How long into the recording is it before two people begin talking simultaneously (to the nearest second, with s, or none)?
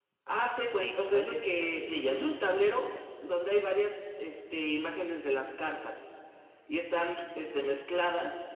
1 s